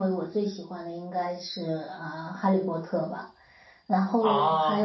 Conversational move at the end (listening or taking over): listening